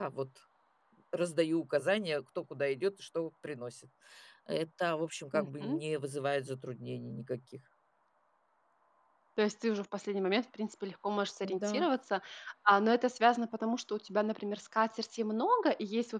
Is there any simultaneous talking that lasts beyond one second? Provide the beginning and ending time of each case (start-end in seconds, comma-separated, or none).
none